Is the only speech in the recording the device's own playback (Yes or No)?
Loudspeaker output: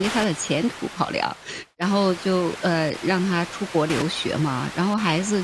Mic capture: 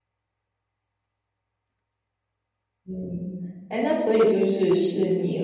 No